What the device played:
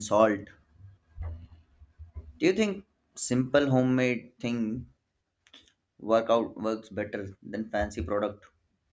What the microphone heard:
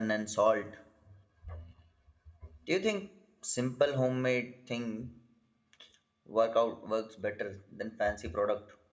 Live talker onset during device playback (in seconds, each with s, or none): none